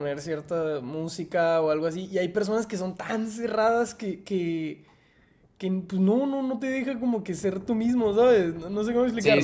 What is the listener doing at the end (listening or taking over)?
taking over